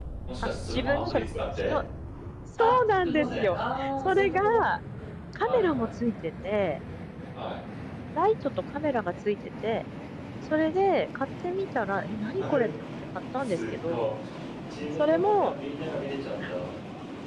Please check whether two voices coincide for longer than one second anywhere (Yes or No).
Yes